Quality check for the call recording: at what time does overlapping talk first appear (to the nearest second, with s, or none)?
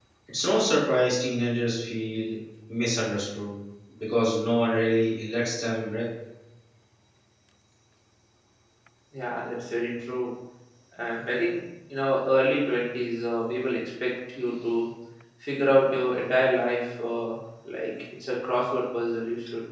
none